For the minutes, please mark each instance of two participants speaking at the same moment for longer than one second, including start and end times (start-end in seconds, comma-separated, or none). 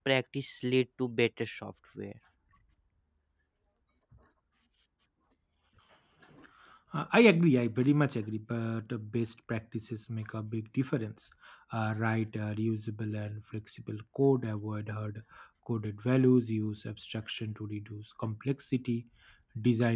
none